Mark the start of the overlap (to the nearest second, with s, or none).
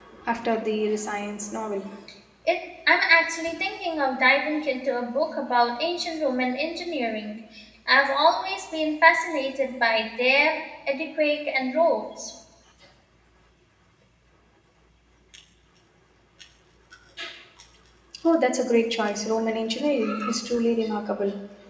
none